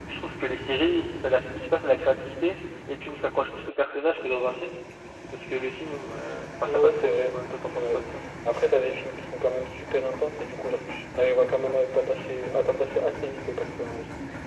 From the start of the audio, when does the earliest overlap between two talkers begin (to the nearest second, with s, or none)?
7 s